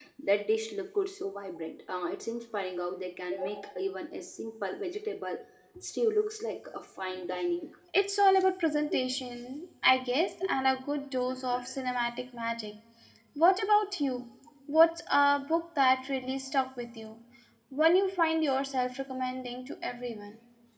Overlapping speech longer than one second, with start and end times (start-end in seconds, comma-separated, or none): none